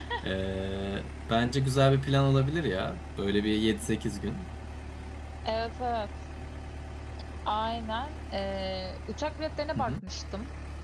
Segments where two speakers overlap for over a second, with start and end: none

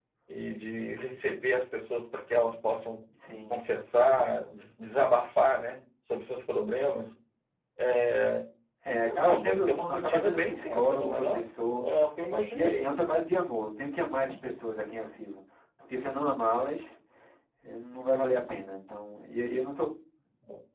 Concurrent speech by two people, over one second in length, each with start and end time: 9.2-11.4

